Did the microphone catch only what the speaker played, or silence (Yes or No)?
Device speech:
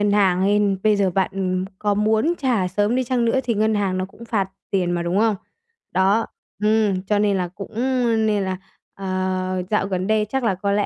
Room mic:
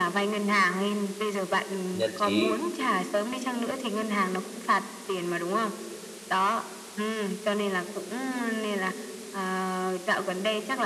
No